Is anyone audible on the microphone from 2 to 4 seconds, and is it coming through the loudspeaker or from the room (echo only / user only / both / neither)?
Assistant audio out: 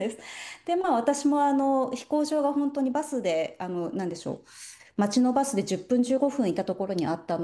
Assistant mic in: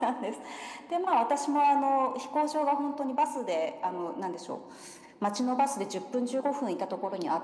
echo only